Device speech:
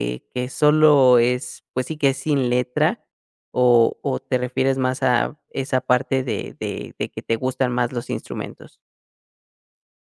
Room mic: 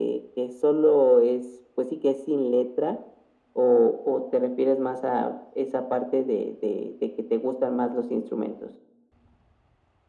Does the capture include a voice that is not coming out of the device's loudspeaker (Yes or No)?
No